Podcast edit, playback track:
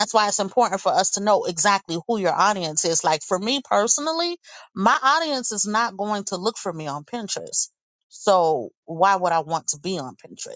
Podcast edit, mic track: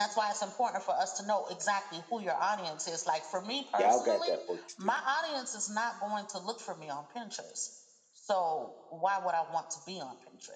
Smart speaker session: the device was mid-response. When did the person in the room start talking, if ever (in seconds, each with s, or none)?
3.7 s